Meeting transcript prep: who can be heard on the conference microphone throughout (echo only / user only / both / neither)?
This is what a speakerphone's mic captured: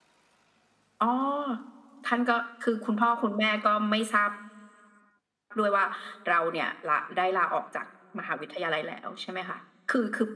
echo only